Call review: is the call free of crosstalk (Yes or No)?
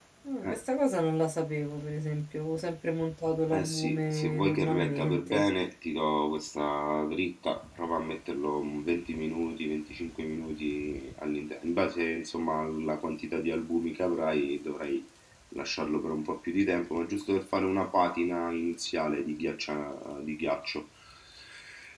No